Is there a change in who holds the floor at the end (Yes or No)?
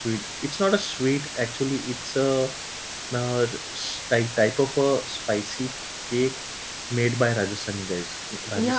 Yes